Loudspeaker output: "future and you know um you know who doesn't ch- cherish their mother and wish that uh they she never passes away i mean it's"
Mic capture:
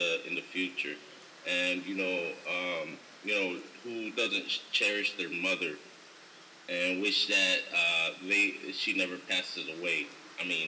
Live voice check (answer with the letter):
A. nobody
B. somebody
A